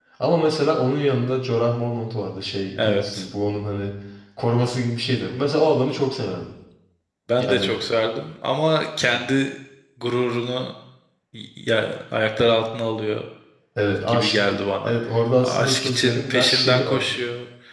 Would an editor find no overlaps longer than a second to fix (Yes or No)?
No